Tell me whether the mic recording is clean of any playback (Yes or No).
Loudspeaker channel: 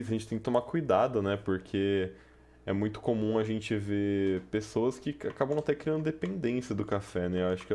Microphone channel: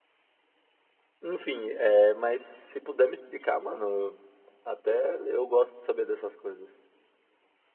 Yes